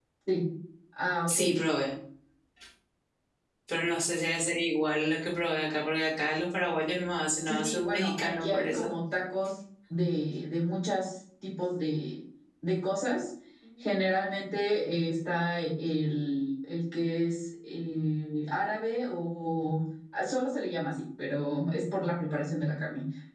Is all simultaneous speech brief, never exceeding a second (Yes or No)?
No